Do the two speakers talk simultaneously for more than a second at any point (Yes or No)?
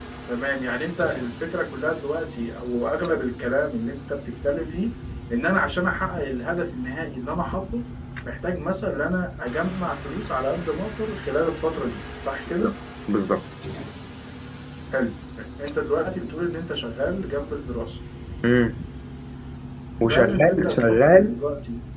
Yes